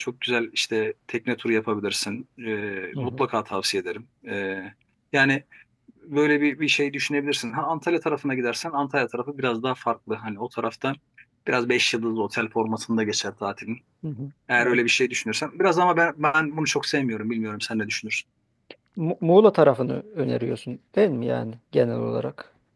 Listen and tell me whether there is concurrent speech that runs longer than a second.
No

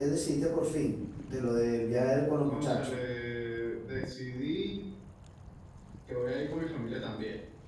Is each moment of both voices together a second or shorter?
Yes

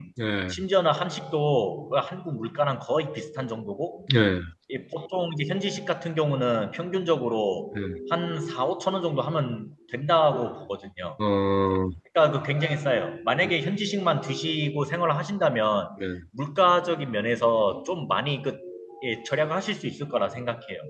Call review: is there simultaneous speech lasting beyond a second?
No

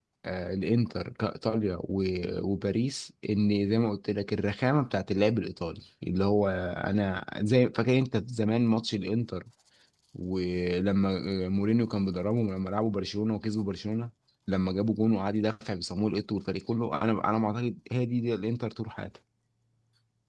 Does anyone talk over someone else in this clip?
No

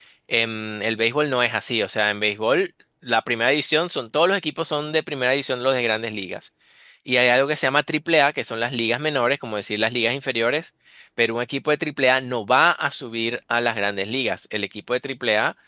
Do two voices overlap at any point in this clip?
No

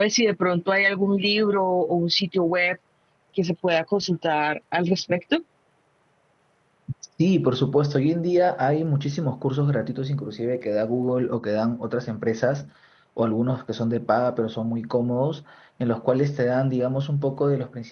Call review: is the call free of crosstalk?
Yes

